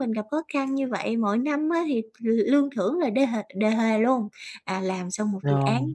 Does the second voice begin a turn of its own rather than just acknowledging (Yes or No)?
No